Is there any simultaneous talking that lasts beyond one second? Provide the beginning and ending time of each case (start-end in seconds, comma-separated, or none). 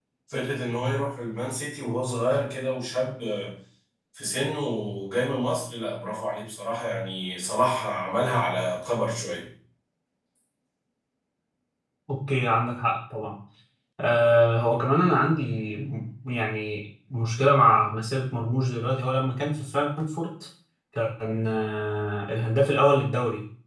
none